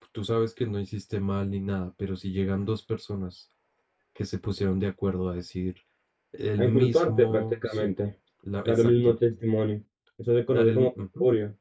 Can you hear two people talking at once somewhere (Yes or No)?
Yes